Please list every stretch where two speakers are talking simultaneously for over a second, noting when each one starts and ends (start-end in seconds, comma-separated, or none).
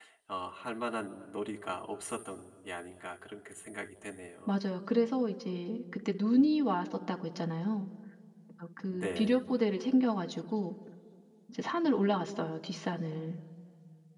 none